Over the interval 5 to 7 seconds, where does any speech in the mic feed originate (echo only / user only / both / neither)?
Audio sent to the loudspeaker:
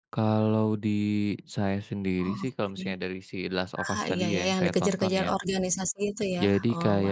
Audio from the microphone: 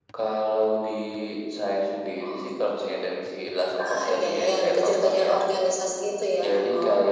echo only